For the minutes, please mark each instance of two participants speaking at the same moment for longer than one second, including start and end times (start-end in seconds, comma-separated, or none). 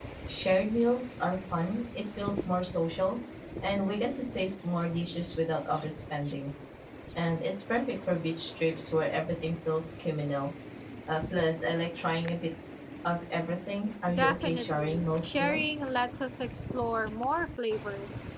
14.1-15.6